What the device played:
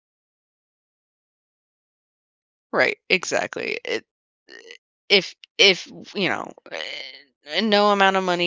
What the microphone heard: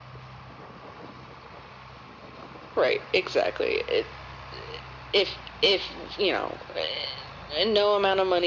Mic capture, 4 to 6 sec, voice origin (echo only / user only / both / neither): echo only